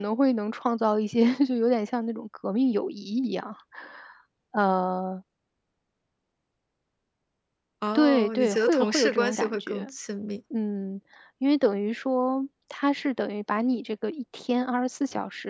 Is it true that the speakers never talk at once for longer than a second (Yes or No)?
No